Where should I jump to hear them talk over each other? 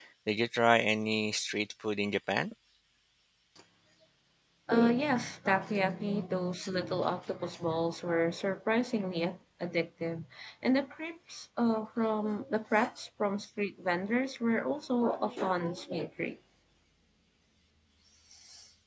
none

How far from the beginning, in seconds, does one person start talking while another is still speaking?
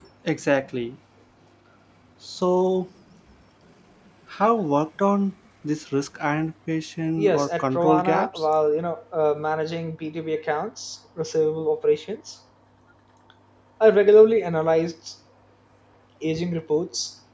7.2 s

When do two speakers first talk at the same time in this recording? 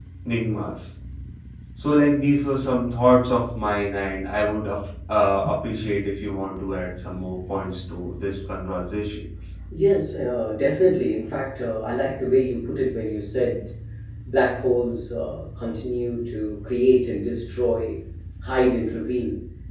none

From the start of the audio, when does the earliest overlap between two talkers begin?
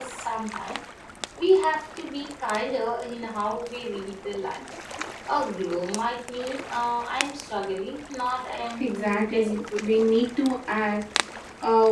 8.8 s

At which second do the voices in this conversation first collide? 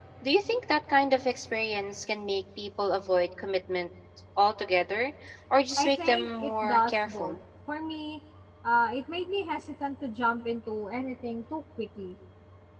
5.8 s

